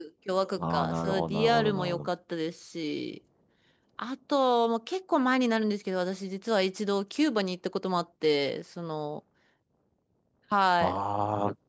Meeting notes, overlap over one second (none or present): present